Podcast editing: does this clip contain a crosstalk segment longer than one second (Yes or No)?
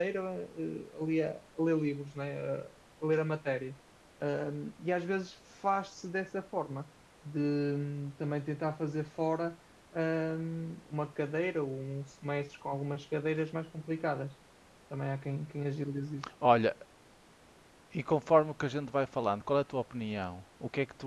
No